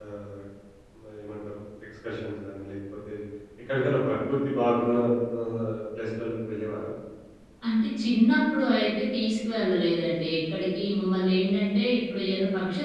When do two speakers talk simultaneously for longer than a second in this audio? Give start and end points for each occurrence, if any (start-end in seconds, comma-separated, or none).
none